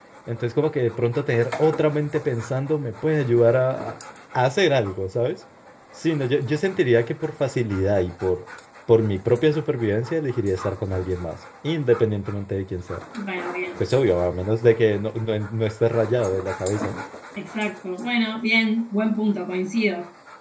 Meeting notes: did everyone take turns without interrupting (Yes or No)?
Yes